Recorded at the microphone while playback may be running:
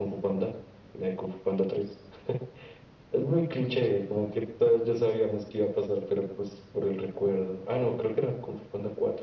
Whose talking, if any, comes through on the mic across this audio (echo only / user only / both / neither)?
echo only